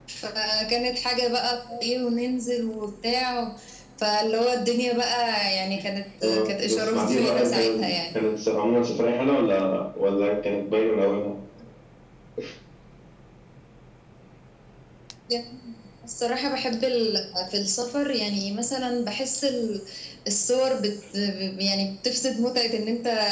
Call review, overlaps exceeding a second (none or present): present